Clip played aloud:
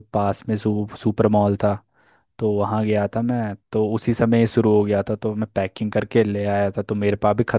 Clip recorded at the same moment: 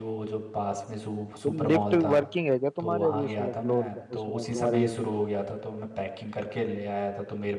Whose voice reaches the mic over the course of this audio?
both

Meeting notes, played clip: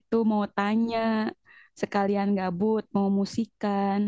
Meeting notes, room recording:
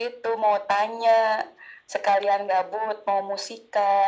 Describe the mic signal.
echo only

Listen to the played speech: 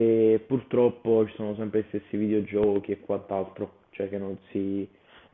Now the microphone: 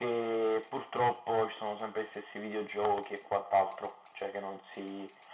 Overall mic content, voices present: echo only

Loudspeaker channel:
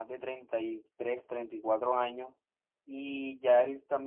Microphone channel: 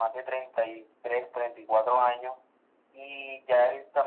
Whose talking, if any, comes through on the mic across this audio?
echo only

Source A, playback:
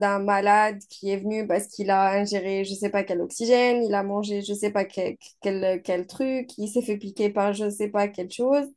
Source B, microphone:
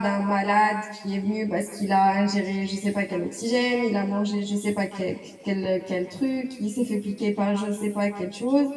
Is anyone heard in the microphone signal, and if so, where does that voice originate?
echo only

